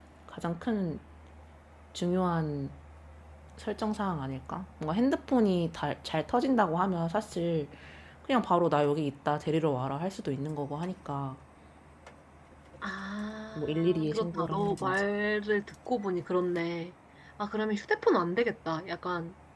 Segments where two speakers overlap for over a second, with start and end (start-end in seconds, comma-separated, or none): 13.6-15.0